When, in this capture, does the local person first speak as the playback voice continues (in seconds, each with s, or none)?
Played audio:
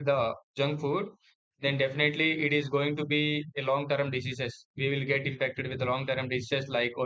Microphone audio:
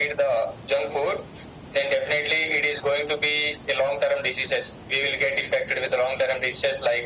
none